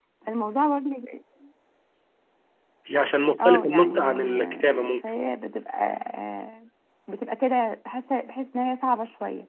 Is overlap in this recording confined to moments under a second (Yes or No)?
No